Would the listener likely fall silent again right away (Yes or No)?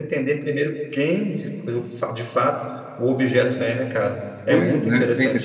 No